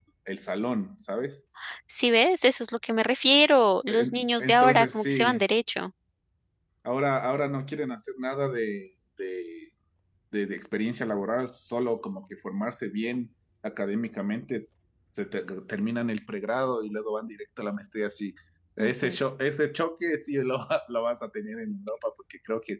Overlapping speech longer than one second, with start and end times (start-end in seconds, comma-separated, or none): 3.9-5.4